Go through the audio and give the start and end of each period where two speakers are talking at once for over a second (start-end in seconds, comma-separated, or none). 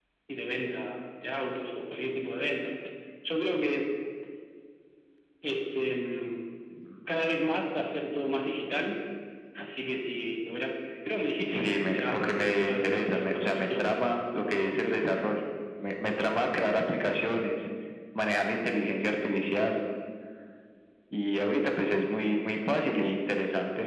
11.5-14.0